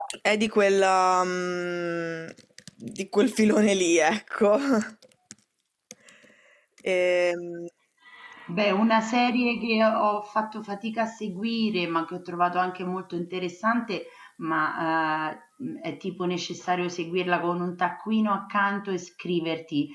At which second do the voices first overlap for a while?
none

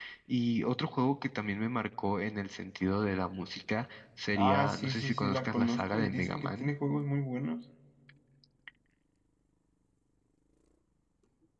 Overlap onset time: 4.4 s

